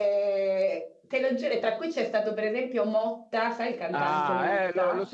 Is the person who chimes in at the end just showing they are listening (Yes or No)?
No